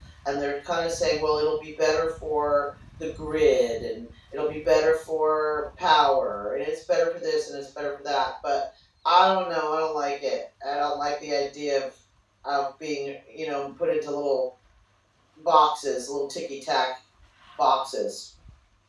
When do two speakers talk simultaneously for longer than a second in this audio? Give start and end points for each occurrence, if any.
none

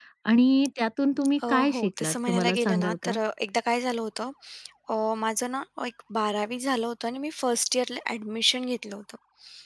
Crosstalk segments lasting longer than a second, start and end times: 1.5-3.1

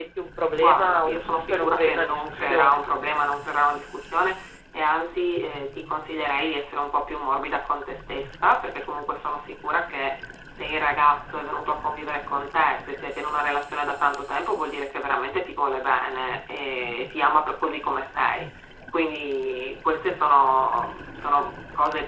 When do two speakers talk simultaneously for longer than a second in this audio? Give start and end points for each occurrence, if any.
0.5-2.8

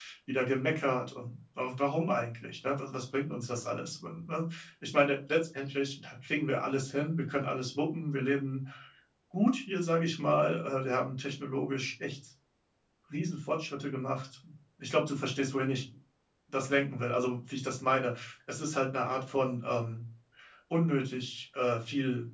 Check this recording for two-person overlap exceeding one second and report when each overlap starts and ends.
none

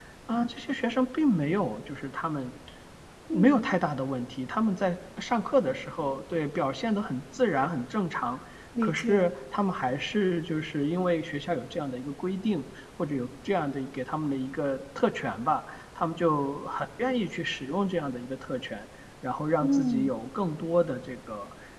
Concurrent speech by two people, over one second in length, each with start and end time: none

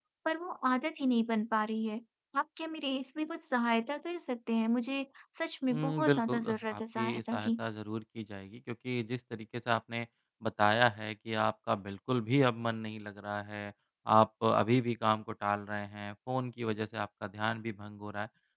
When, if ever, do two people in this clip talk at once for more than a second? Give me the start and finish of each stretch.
5.7-7.5

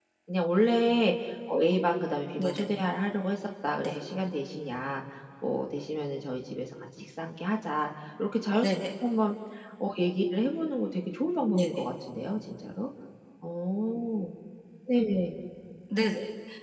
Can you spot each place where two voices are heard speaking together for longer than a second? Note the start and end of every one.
none

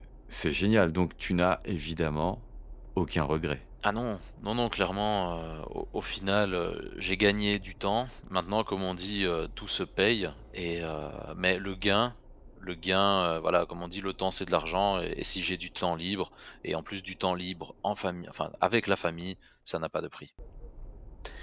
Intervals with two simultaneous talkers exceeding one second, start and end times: none

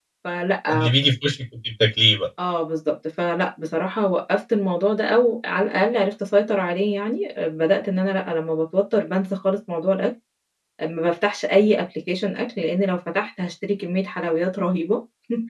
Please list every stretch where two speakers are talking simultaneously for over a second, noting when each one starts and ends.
none

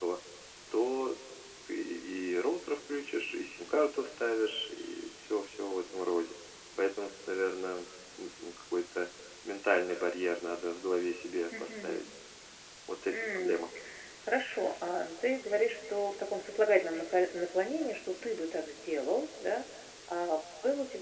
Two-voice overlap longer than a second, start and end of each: none

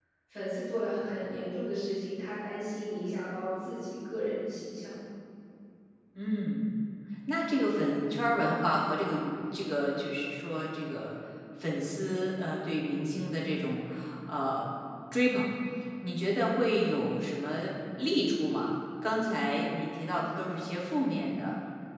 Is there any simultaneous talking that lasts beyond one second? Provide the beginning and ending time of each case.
none

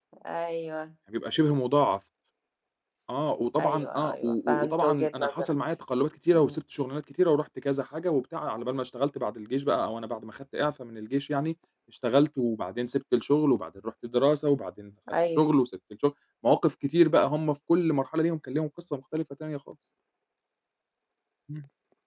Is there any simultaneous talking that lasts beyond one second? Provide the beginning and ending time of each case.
3.6-5.5

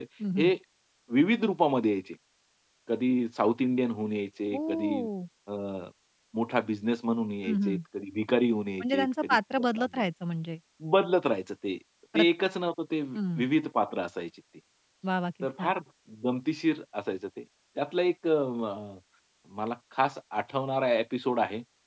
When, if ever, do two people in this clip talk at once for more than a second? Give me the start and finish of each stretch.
8.8-10.0

